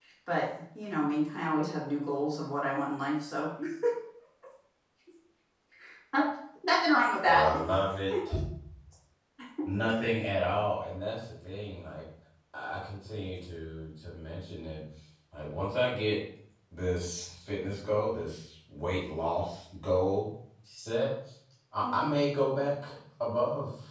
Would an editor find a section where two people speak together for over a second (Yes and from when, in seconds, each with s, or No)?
No